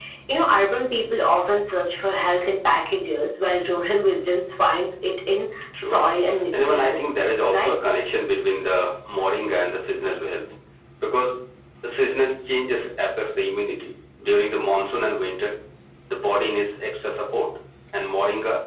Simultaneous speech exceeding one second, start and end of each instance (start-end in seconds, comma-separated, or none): 6.5-7.7